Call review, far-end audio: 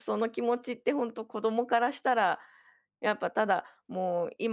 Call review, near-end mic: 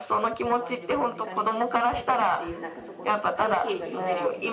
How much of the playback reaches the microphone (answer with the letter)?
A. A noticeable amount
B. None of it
A